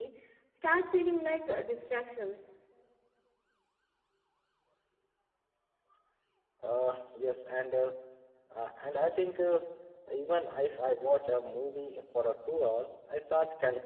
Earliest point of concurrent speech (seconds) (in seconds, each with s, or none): none